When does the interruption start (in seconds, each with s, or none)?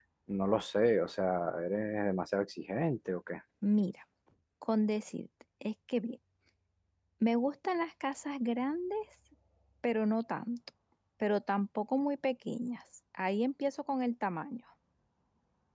none